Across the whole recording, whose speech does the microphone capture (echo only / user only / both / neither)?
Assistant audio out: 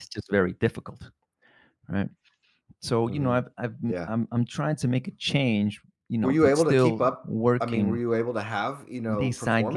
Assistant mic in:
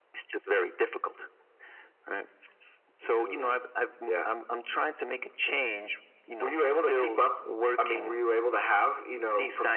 echo only